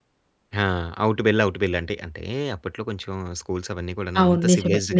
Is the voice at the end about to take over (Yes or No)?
Yes